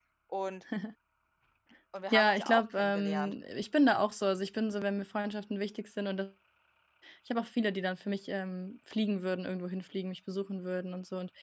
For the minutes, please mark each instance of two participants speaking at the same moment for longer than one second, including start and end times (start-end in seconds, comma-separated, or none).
2.1-3.3